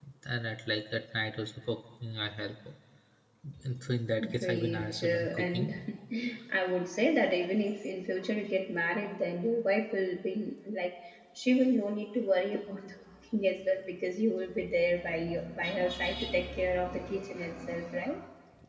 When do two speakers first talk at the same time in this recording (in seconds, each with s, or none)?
4.4 s